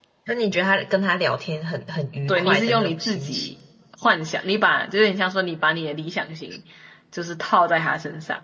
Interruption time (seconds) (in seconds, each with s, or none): 2.3 s